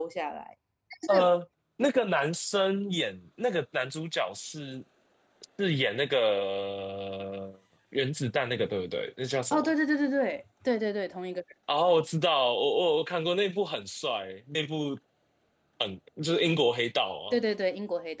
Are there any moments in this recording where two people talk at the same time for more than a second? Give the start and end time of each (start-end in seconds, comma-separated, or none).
none